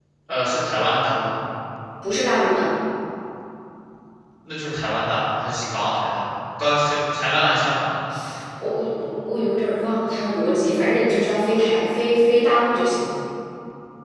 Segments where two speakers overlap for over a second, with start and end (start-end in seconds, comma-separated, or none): none